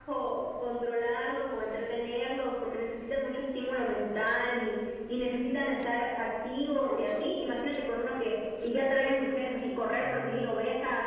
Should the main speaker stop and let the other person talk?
No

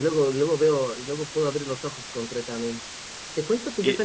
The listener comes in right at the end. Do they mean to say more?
No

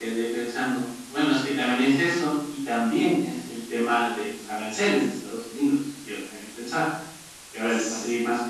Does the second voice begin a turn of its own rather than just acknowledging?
No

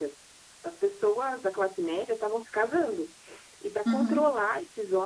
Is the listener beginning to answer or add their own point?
No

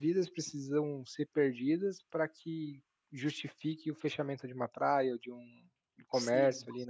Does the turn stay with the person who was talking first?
No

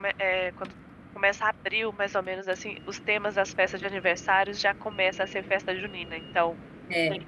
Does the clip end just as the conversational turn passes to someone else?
No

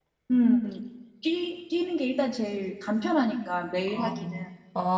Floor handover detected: Yes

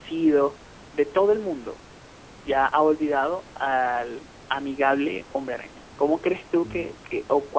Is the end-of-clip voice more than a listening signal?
No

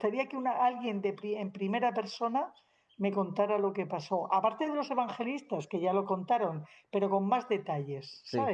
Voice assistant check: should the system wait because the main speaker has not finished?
No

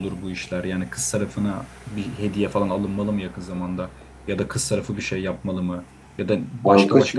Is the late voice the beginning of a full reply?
No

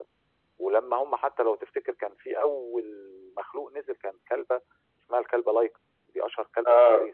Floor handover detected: No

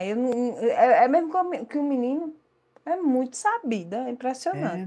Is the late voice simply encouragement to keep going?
No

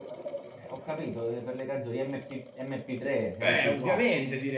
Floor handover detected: Yes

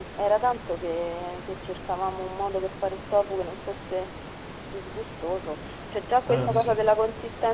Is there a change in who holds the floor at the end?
No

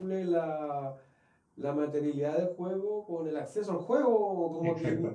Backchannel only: Yes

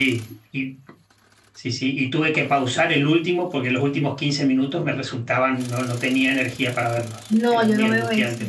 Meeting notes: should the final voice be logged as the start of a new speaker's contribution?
Yes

